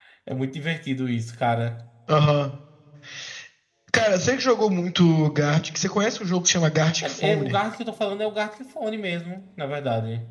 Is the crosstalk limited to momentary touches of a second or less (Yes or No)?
Yes